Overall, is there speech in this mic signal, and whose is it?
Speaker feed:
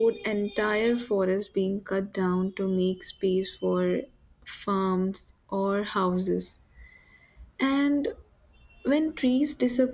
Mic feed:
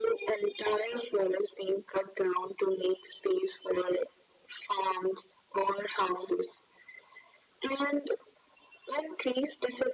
echo only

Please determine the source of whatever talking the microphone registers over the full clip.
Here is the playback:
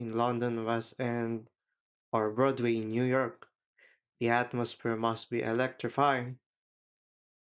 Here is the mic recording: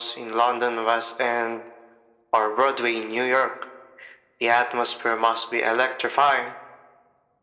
echo only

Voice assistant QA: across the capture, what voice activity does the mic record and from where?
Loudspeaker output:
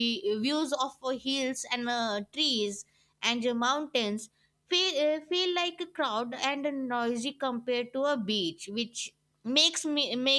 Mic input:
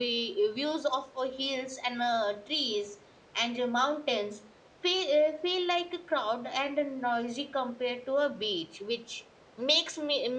echo only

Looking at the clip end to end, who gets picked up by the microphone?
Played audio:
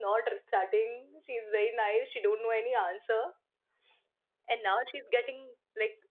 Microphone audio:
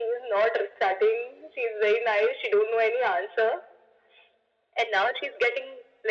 echo only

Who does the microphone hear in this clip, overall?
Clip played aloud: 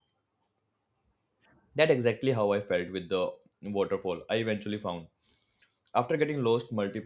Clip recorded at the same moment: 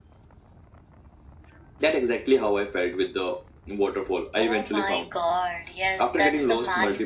both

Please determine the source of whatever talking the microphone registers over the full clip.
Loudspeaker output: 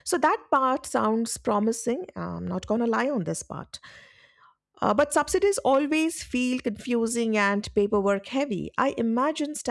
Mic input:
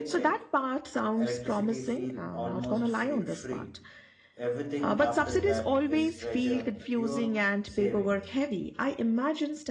both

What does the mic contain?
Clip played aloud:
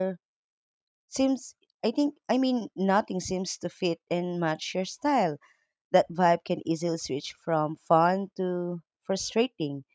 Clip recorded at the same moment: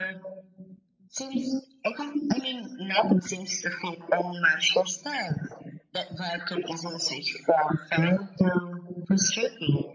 echo only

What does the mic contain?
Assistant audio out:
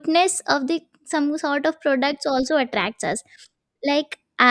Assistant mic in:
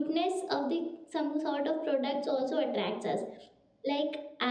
echo only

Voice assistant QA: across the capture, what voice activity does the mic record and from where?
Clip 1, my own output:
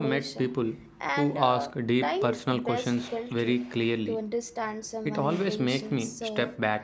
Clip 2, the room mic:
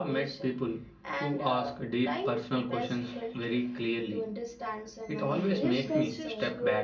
both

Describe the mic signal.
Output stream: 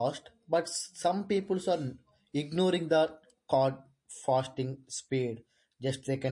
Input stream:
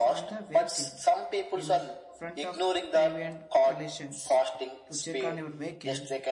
both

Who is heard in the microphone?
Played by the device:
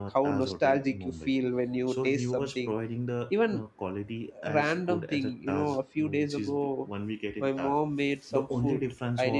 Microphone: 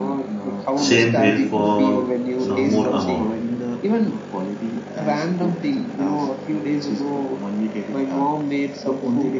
both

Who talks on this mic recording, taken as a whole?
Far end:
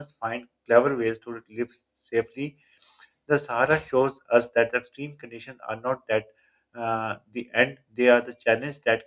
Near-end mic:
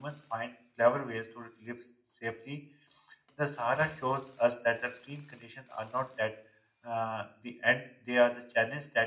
echo only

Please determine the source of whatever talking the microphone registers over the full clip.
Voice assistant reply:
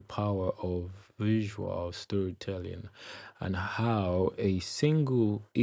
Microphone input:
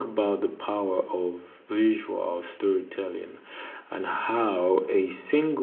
echo only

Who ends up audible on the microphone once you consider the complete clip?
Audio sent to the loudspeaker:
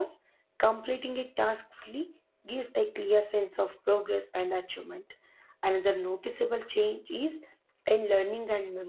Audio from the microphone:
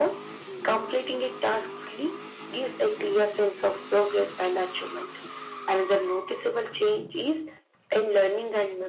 echo only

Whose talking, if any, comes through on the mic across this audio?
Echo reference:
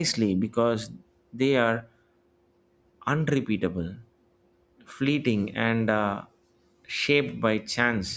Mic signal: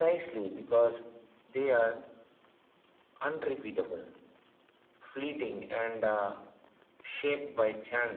echo only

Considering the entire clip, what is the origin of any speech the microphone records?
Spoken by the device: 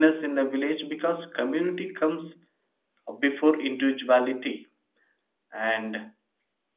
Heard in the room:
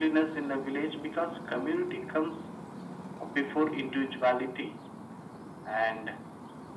echo only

